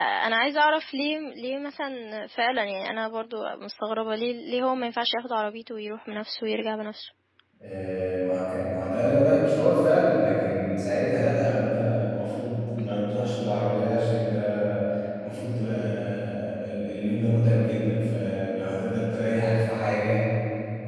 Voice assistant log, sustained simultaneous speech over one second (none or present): none